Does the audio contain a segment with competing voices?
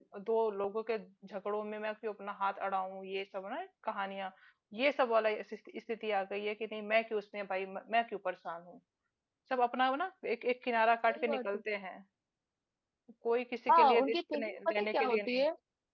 Yes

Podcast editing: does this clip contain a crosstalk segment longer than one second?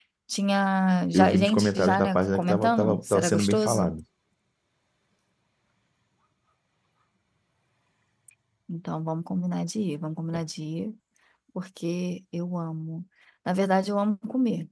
Yes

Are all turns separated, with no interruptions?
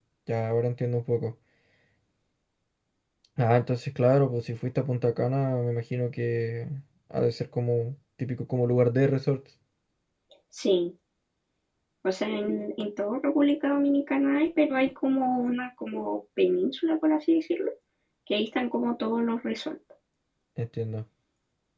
Yes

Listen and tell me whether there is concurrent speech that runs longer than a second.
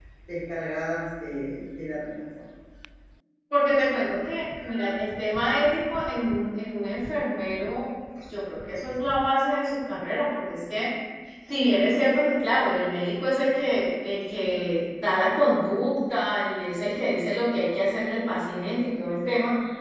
No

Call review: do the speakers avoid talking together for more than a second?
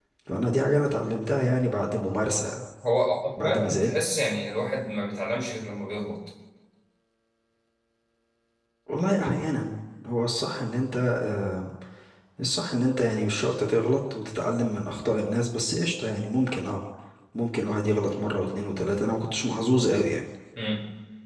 Yes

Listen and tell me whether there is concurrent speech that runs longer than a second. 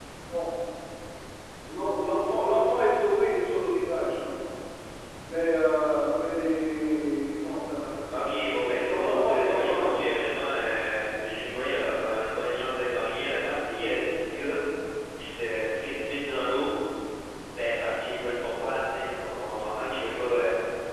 Yes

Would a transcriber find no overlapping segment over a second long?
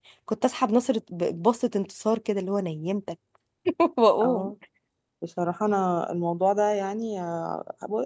Yes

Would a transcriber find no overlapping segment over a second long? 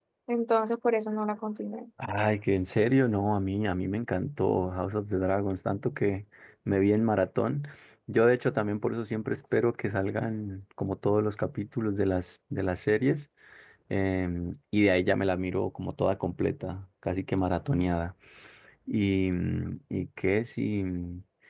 Yes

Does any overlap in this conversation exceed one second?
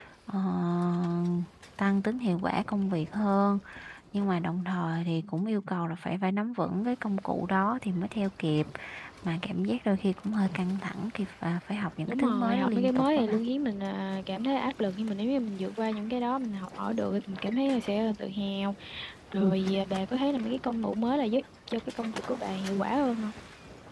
Yes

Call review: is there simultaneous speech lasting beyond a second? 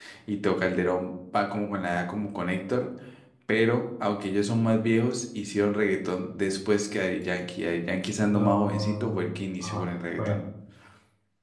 Yes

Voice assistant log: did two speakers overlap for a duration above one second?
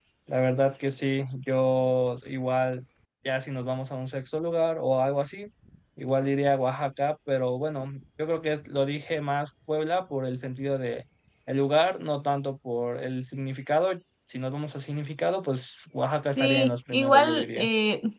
Yes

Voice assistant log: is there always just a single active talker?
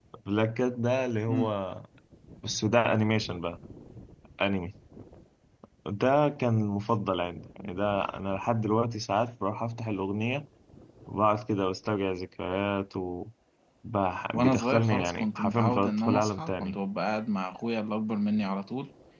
No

